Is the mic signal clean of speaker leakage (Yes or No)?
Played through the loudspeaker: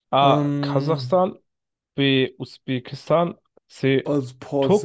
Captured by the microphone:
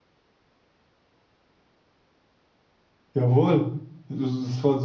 Yes